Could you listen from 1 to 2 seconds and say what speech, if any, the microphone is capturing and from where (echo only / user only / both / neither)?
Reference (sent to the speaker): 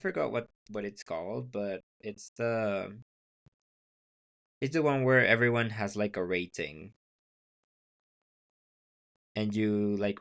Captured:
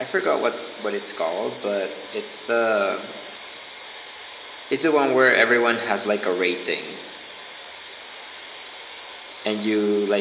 echo only